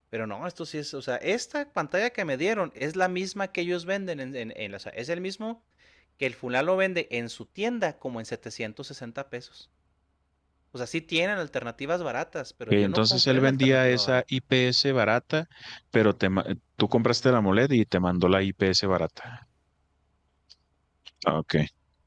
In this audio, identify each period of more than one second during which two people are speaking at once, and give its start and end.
12.7-14.2

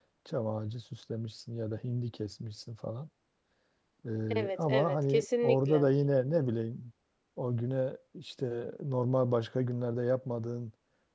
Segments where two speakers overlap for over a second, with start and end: 4.3-5.9

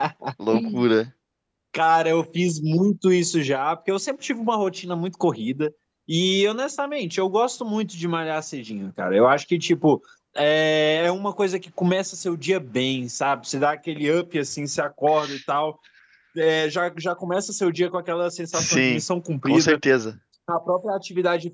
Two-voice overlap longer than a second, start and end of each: none

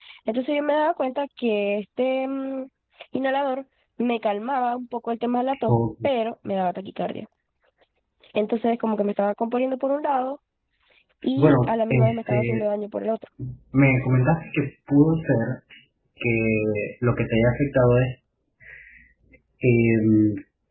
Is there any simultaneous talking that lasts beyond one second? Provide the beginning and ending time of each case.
11.4-12.6

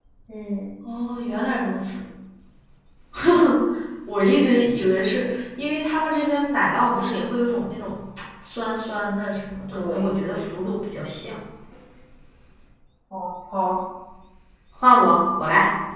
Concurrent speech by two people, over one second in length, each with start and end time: none

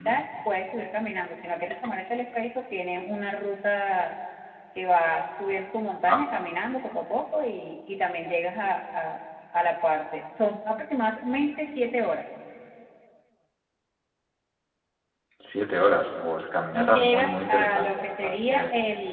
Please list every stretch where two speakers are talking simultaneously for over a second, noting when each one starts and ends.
16.7-18.6

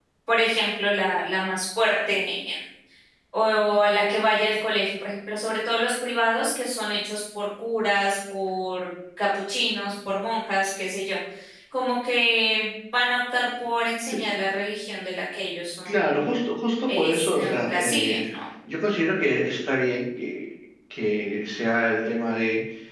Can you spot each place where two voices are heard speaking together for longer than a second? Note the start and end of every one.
16.9-18.2

